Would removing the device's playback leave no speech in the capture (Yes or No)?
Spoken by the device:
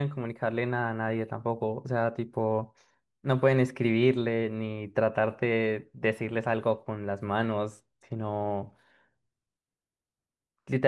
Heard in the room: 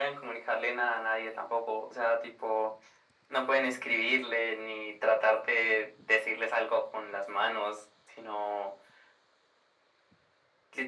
Yes